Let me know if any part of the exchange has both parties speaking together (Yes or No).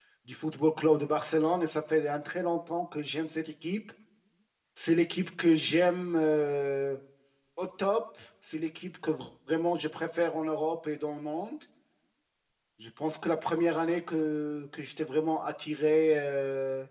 No